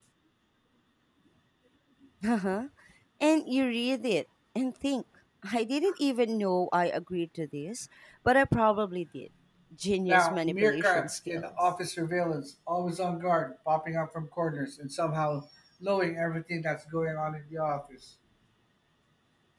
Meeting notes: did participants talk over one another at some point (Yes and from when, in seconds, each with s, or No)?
Yes, from 10.0 s